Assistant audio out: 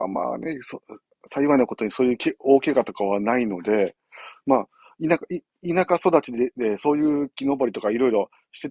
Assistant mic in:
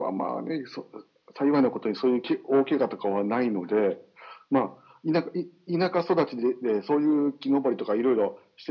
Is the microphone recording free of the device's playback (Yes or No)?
No